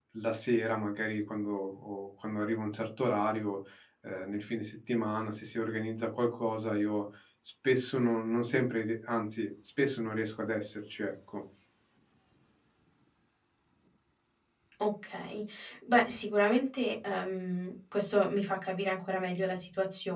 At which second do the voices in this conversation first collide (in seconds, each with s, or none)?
none